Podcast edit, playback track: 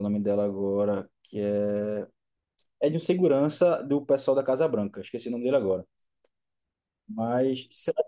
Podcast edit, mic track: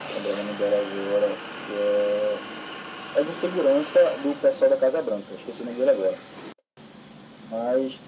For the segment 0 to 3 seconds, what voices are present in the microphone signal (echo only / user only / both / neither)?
echo only